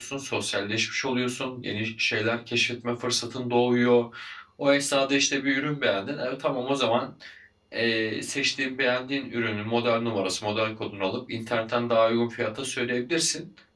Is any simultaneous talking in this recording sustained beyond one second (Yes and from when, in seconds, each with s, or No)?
No